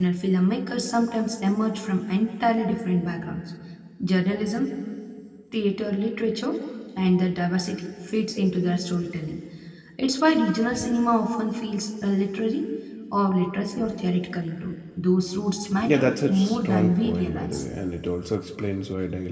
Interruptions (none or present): present